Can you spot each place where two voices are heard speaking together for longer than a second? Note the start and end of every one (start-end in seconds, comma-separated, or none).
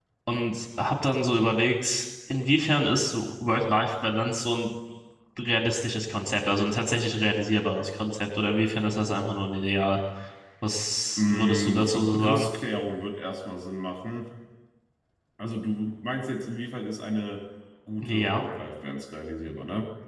11.2-12.5